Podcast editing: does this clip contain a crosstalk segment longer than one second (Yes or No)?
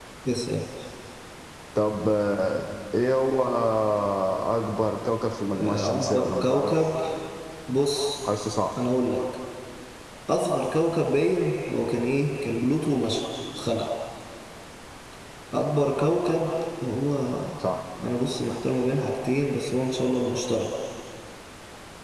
Yes